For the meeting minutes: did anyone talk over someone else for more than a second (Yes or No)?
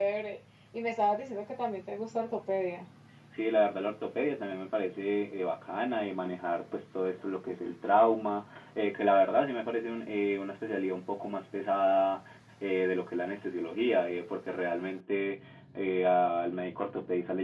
No